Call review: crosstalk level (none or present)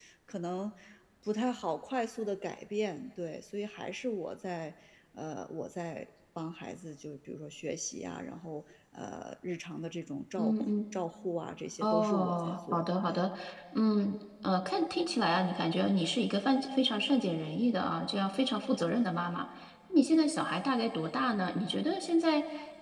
present